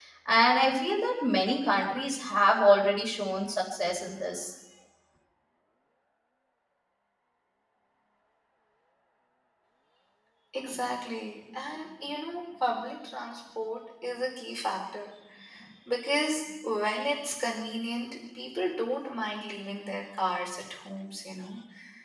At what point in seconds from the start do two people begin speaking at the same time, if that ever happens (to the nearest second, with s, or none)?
none